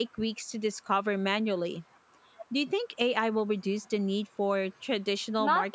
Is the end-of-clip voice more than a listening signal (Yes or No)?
Yes